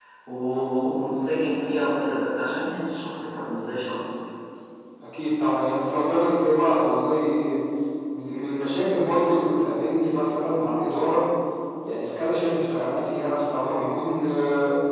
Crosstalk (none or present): none